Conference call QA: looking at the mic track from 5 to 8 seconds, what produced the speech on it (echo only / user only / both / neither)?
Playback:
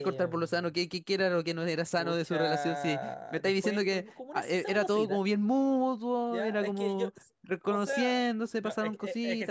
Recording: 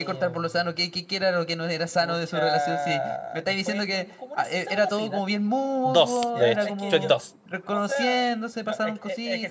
both